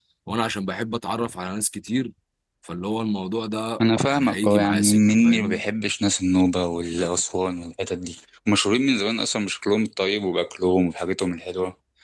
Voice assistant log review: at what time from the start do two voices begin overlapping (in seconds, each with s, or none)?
3.8 s